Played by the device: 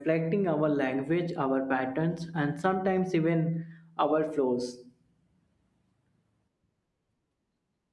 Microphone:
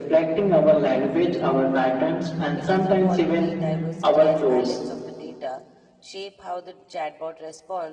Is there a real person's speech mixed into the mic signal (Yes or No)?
Yes